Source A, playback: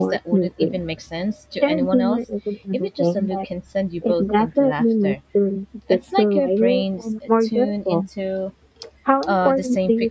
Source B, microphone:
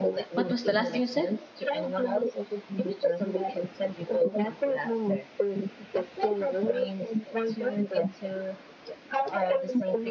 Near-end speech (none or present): present